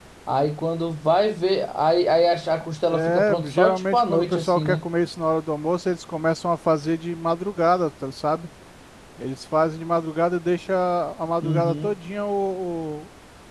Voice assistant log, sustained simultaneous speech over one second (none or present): present